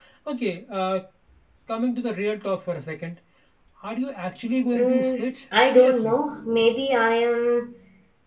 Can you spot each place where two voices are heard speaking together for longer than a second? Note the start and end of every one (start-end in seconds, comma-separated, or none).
4.7-6.2